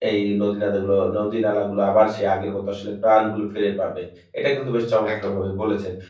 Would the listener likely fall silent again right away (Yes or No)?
Yes